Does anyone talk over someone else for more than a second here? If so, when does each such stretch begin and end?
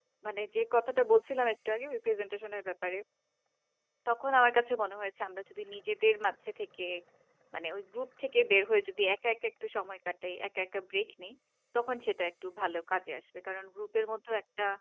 none

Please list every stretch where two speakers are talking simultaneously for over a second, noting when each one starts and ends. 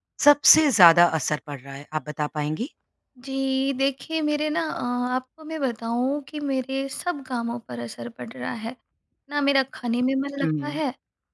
none

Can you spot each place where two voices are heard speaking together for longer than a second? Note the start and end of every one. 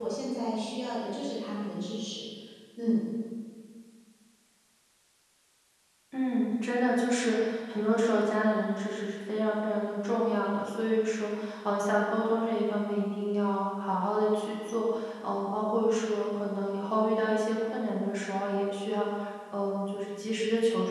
none

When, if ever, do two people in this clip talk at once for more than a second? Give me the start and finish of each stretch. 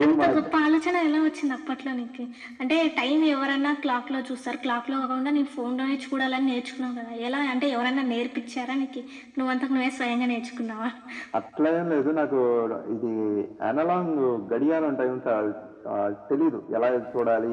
none

